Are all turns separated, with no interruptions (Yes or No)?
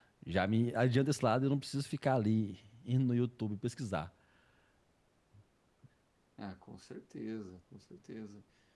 Yes